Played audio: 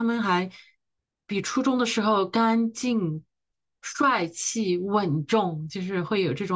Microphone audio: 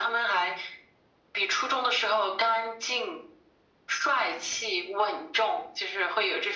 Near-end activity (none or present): none